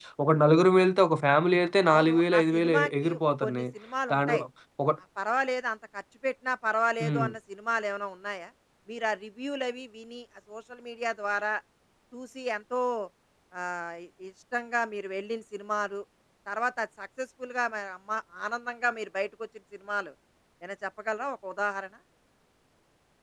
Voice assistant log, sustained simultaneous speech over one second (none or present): present